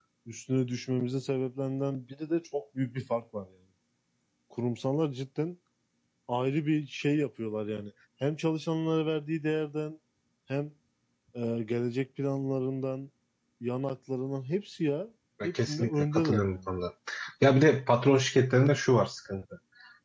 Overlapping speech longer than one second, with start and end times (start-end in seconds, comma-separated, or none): 15.4-16.7